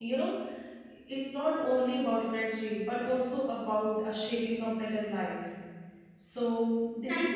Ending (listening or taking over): taking over